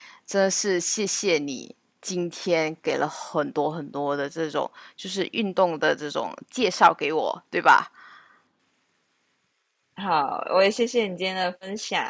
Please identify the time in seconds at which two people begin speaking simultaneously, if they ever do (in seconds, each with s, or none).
none